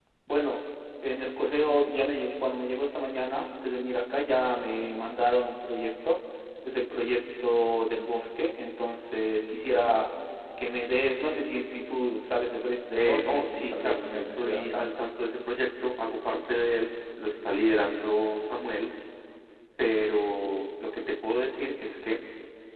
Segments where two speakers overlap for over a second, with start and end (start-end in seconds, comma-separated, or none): 13.0-14.9